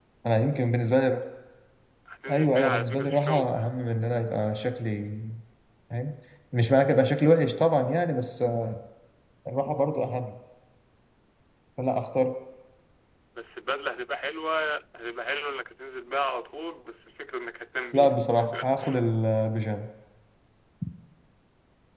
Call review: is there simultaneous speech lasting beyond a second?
Yes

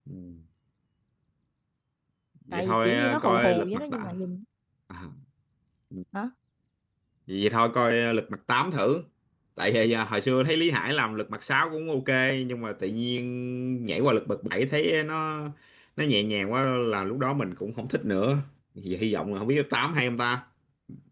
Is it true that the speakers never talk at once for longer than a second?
No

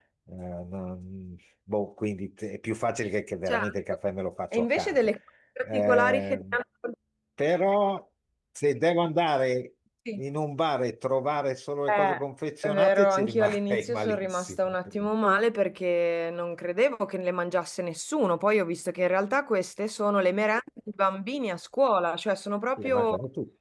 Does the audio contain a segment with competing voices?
Yes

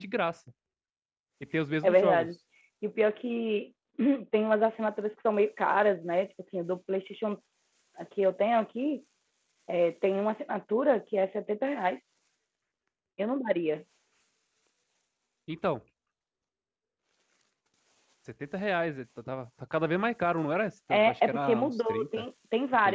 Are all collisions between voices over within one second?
No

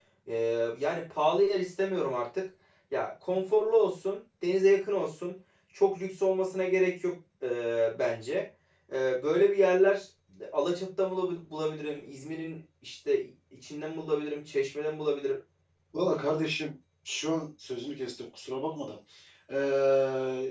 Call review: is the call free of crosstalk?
Yes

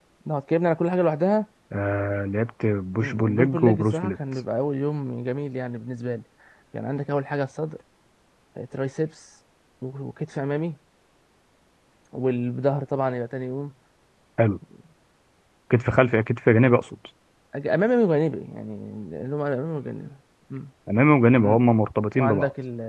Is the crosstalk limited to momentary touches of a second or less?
No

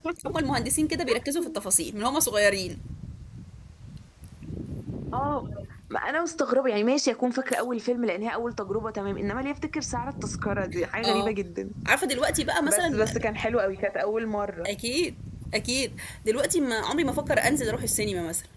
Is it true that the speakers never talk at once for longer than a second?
Yes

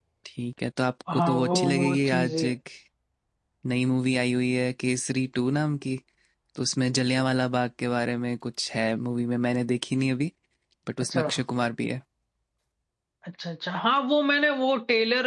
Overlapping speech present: Yes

